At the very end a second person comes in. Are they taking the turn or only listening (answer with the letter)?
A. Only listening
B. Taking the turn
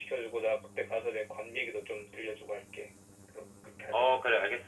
B